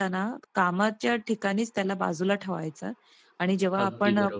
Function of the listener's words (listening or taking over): listening